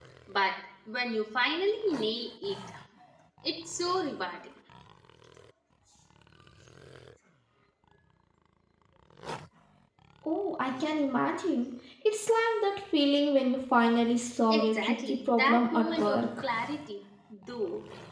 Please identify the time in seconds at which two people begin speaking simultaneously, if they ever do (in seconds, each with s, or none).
14.5 s